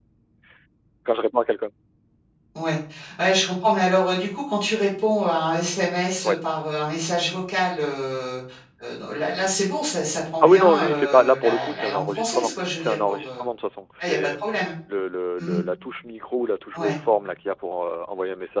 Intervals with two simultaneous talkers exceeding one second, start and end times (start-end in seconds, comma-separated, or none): 10.4-13.4